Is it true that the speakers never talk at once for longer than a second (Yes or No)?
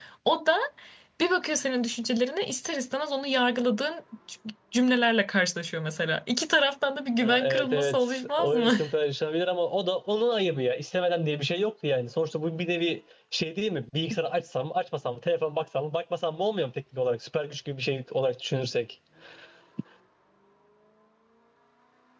No